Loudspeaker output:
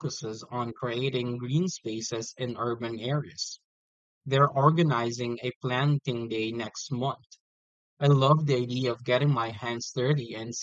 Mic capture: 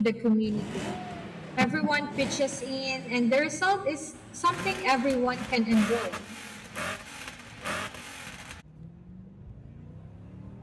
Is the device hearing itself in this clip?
No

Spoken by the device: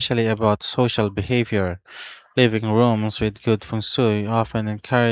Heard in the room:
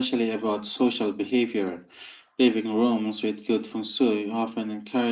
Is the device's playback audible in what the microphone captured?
Yes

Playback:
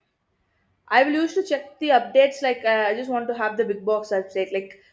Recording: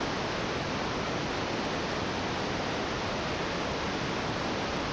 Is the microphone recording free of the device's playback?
Yes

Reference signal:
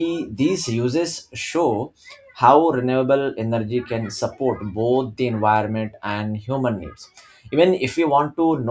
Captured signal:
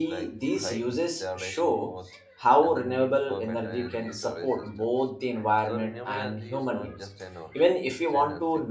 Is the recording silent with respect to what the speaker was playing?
No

